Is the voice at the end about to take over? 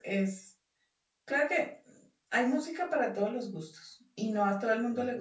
No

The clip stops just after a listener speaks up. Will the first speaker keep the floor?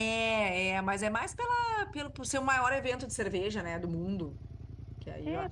No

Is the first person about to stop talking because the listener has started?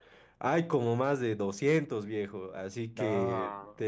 No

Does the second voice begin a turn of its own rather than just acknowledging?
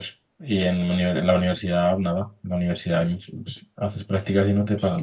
No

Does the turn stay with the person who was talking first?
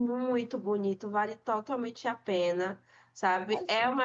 Yes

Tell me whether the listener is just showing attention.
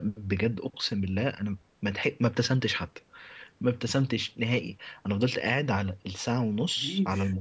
Yes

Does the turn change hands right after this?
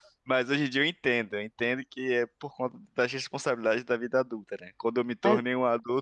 No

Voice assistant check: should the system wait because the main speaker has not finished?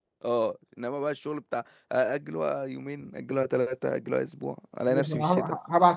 No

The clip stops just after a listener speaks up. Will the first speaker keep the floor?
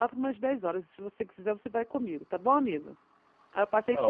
No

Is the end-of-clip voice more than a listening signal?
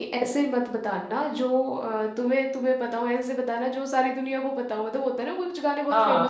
Yes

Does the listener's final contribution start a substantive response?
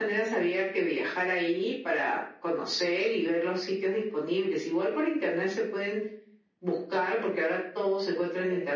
No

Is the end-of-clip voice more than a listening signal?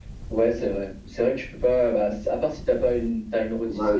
Yes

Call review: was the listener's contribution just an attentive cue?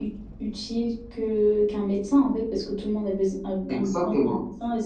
Yes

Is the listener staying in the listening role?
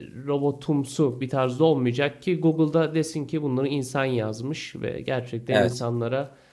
Yes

